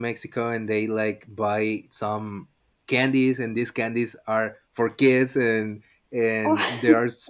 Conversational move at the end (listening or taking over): listening